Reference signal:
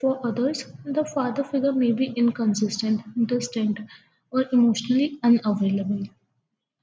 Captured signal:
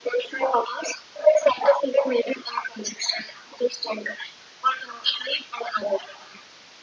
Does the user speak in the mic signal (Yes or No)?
No